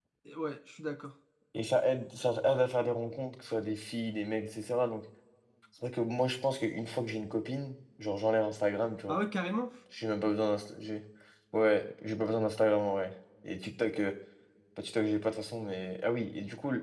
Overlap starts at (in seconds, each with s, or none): none